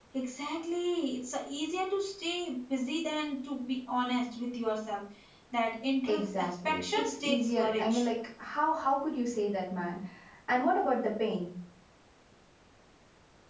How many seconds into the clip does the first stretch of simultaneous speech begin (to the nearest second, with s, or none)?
6 s